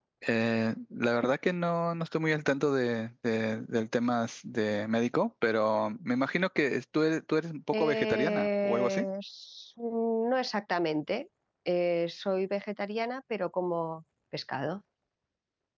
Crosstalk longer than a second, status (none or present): present